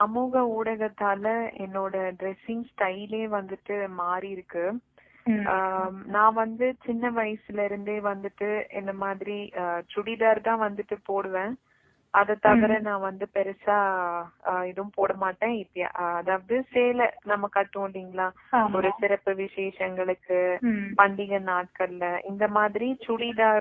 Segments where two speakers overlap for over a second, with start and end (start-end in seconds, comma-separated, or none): none